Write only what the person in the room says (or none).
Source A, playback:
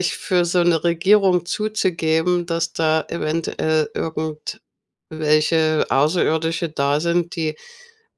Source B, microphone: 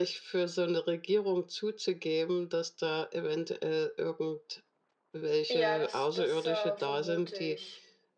Ja, das das, äh, vermute ich.